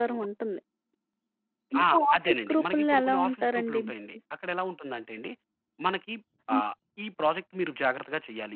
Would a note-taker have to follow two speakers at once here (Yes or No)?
Yes